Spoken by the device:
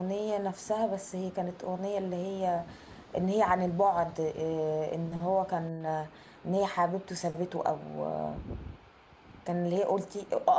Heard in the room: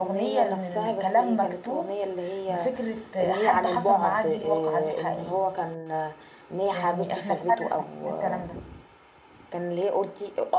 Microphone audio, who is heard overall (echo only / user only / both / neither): both